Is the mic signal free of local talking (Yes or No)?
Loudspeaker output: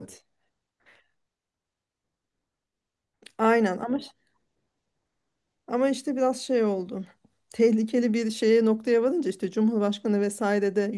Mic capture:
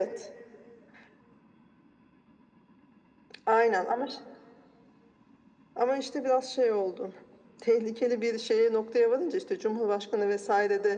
Yes